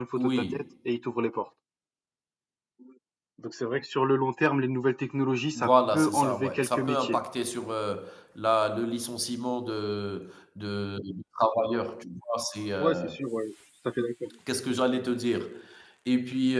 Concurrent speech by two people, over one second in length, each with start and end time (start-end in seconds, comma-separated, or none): 5.6-7.2